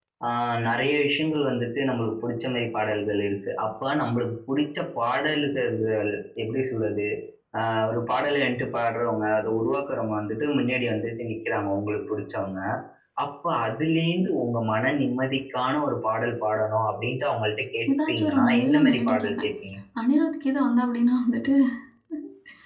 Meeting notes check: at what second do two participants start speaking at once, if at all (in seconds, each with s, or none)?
17.9 s